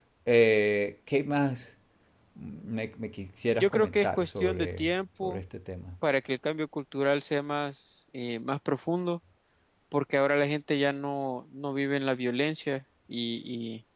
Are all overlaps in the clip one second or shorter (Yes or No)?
No